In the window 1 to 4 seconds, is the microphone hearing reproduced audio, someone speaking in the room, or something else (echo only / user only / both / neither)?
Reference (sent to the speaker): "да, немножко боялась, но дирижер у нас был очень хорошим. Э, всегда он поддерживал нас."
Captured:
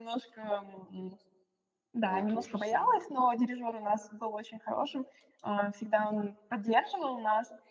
both